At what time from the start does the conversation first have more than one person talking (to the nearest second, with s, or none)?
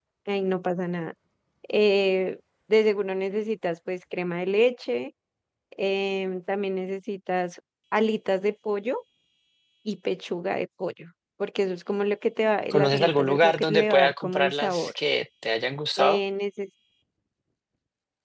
13 s